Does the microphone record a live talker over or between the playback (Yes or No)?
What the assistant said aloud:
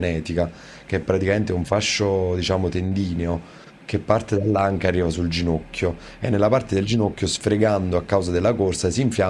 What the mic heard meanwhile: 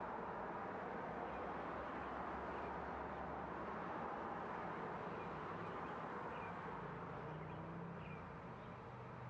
No